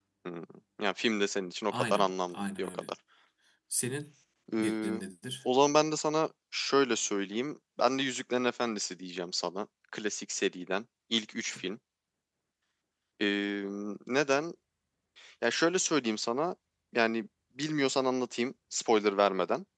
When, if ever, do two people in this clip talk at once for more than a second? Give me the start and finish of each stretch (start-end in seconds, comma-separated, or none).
1.7-2.9